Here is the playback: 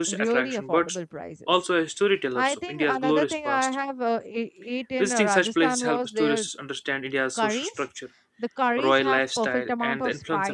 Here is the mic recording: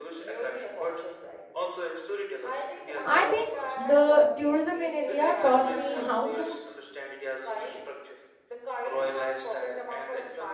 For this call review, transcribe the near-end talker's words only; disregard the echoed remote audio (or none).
i think the tourism in india taught me how to